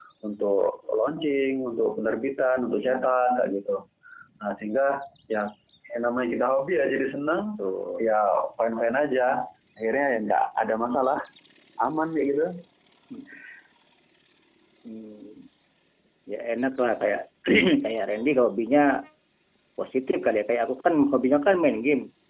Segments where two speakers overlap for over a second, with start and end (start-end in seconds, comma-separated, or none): none